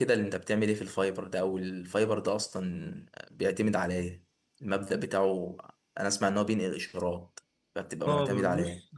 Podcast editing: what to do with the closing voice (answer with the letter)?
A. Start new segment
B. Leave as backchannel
A